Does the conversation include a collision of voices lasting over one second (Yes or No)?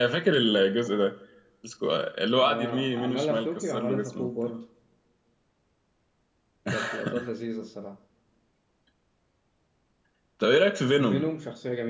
Yes